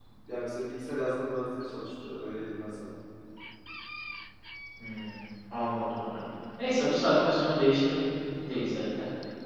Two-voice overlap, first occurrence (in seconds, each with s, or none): none